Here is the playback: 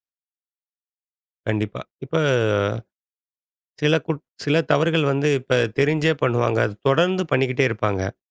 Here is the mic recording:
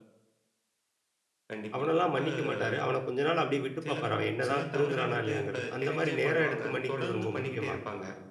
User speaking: Yes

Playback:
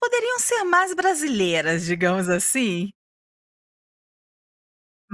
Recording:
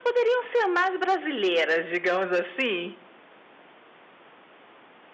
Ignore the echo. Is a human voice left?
No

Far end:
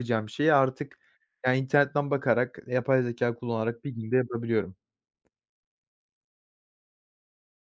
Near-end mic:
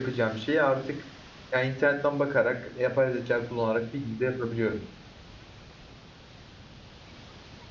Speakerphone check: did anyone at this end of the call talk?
No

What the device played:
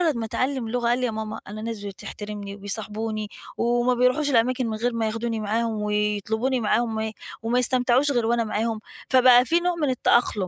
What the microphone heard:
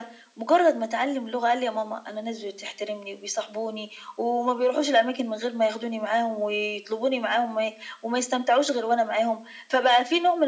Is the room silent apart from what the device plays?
Yes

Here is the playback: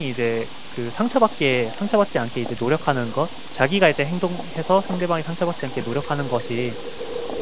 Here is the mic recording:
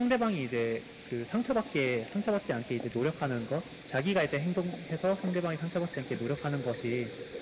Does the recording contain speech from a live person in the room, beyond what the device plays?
No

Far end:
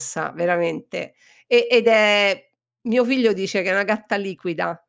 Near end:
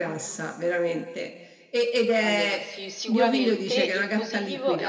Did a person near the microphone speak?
Yes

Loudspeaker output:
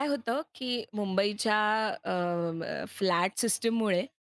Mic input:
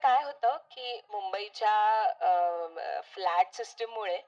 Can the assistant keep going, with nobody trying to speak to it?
Yes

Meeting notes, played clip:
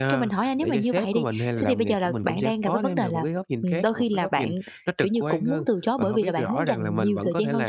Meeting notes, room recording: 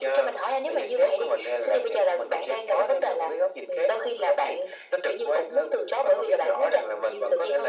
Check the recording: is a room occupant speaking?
No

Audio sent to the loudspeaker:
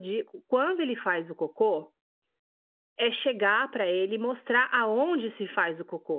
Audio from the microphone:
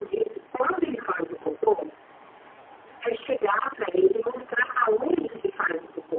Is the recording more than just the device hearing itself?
No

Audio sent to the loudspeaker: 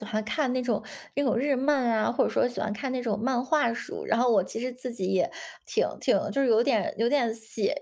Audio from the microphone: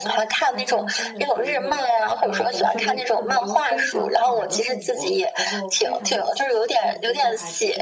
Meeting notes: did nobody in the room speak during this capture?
No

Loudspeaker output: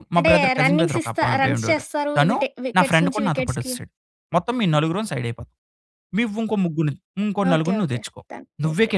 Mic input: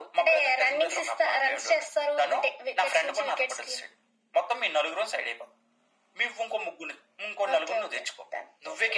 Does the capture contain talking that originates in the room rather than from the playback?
No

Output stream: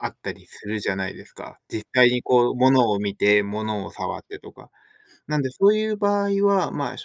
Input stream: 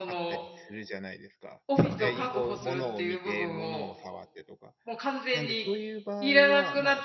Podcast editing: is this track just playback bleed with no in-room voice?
No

